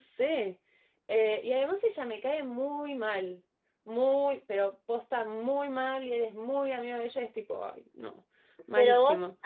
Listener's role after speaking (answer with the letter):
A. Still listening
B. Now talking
B